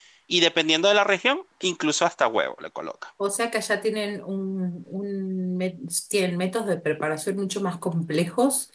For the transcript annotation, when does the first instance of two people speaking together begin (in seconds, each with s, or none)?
none